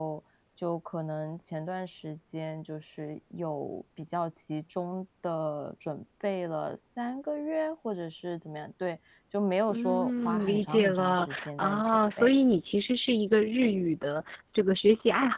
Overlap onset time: 10 s

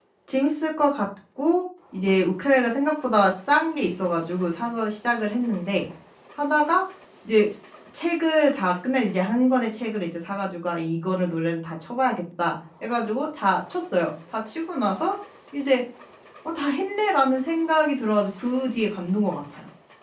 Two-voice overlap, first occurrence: none

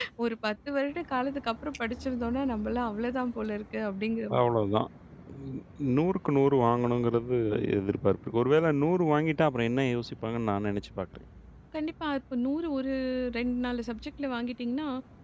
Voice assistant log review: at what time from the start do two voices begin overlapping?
none

